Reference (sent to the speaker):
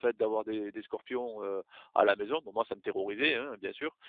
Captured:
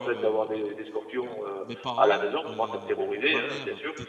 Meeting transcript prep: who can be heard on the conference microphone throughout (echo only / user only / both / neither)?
both